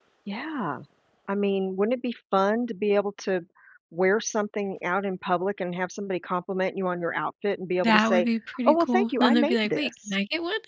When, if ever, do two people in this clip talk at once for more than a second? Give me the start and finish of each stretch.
8.7-10.1

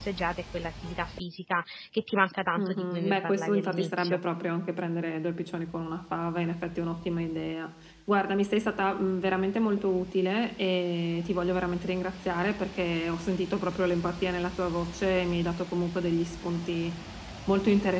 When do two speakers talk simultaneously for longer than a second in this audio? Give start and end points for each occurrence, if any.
2.6-4.2

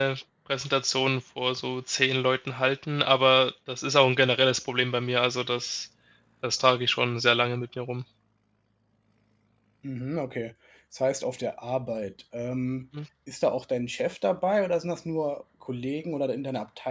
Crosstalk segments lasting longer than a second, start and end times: none

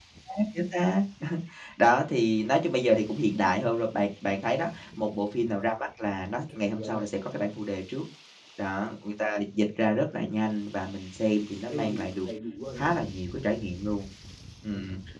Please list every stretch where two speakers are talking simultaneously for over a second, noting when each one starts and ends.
none

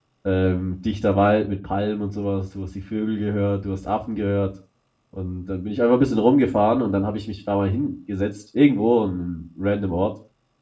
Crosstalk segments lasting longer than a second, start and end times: none

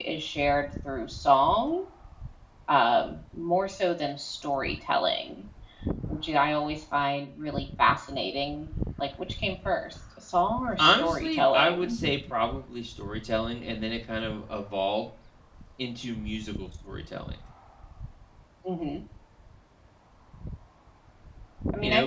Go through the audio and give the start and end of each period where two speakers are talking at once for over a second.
10.8-12.1

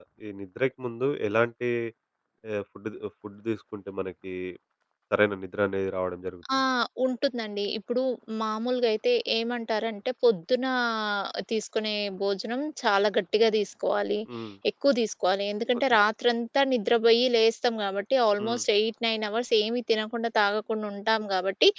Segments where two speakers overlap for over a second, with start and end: none

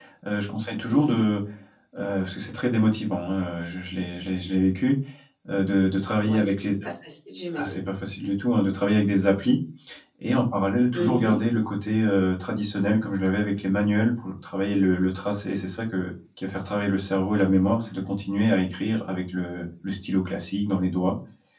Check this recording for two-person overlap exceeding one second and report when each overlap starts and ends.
none

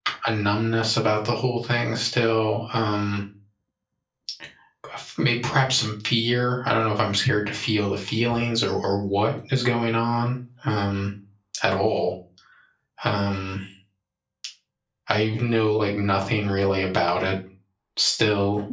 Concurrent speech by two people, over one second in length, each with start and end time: none

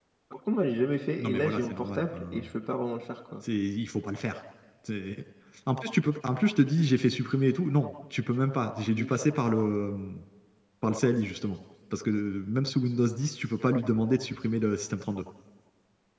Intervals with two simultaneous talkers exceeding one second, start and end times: 1.2-2.5

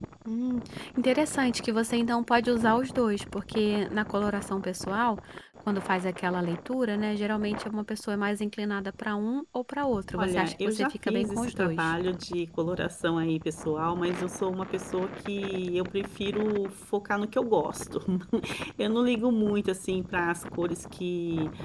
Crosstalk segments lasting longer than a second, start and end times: 10.2-11.9

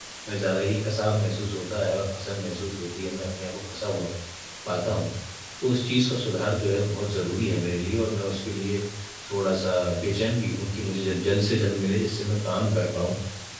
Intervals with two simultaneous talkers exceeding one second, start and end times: none

